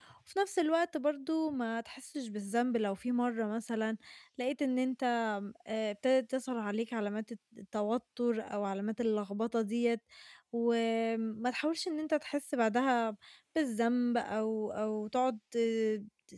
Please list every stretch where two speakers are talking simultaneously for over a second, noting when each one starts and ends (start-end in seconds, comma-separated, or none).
none